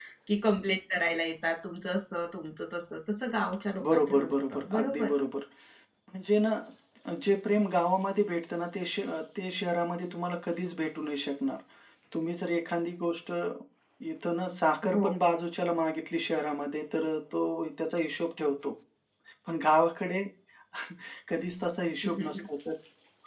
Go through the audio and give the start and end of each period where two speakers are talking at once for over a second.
3.8-5.1

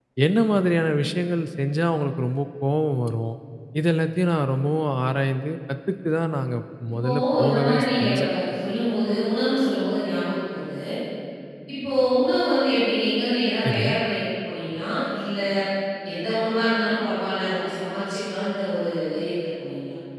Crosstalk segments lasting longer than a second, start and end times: 7.0-8.3

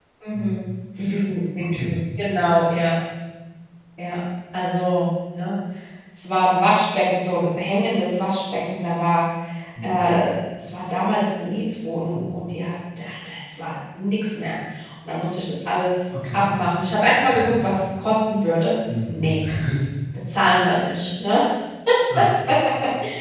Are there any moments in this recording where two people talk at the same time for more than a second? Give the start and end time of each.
none

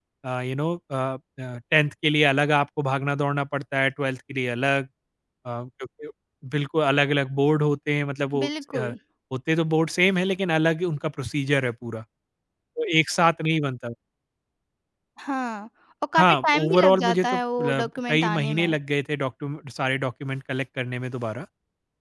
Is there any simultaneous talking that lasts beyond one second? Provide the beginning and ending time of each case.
16.1-18.8

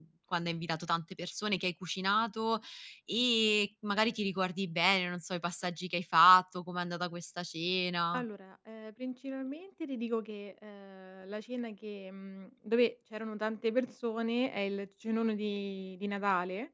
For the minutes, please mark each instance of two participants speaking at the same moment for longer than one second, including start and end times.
none

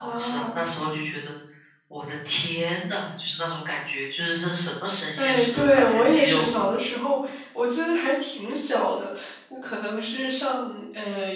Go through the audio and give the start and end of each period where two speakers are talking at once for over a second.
5.2-6.5

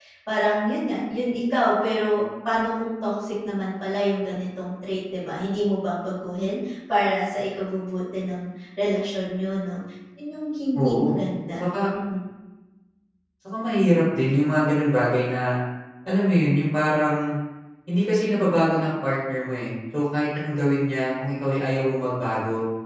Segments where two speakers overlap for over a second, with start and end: none

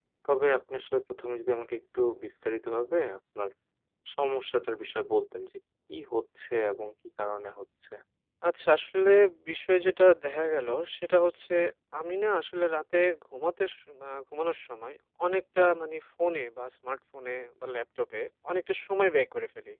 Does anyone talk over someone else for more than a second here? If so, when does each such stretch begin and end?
none

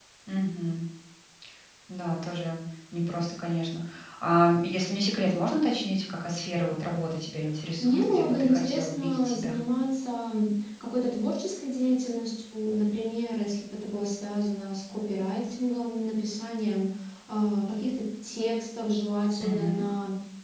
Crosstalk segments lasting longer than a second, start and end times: 7.8-9.6

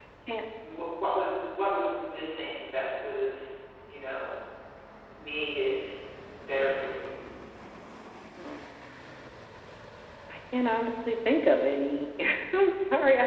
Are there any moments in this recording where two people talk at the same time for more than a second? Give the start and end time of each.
none

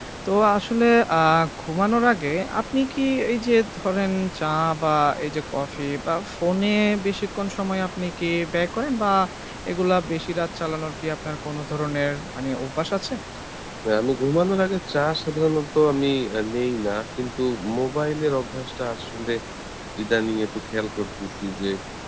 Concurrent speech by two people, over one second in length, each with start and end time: none

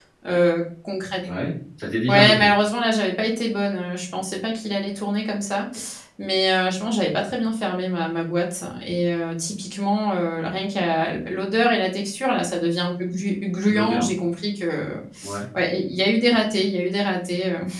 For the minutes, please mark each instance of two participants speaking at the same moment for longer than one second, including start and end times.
none

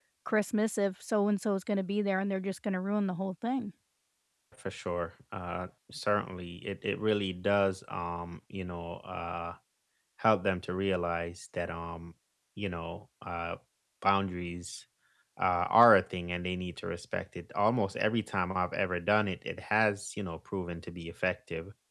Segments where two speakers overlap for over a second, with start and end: none

